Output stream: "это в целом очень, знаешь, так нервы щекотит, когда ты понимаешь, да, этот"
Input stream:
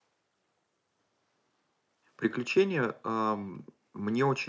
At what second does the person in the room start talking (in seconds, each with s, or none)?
2.2 s